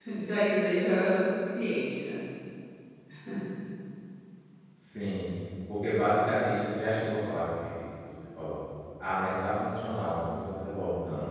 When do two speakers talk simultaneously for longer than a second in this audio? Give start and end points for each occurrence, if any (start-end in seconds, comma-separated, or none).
none